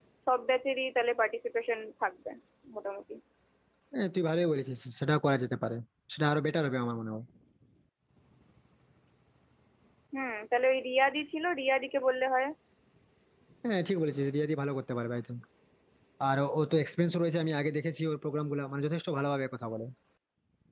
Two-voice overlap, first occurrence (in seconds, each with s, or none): none